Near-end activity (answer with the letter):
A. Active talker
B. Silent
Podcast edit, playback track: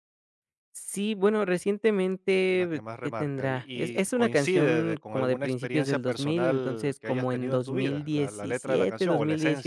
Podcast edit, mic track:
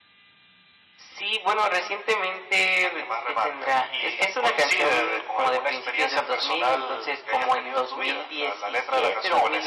B